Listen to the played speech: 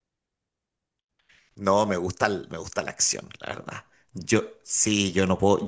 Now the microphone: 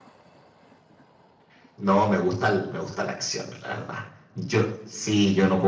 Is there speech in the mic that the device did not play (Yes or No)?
No